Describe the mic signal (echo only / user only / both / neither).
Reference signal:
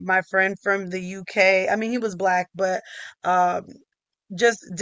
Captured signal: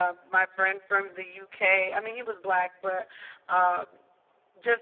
echo only